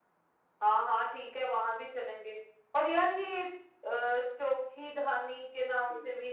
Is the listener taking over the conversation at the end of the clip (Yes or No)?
Yes